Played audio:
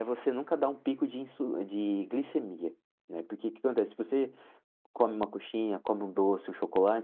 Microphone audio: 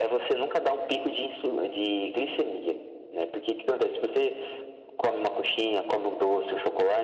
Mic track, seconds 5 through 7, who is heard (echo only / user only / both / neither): echo only